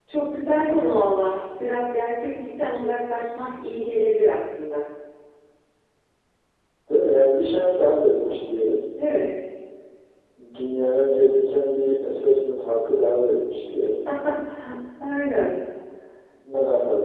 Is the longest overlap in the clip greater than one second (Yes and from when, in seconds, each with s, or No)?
No